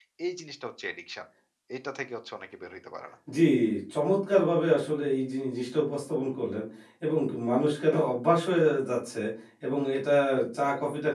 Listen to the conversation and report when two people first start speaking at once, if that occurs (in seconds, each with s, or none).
none